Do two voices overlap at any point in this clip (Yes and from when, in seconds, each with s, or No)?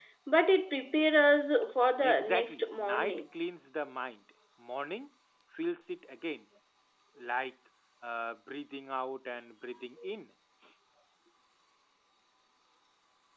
Yes, from 2.0 s